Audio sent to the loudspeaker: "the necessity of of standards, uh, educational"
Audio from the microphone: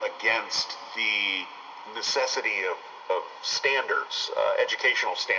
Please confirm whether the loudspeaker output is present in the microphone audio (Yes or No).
Yes